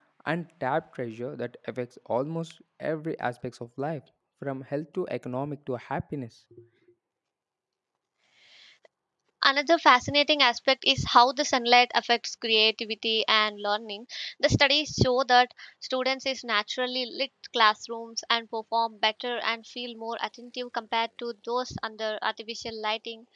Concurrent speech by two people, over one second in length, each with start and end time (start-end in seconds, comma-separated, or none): none